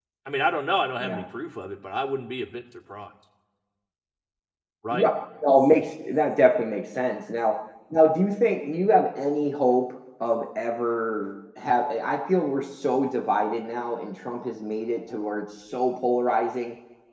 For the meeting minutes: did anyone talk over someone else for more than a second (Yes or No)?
No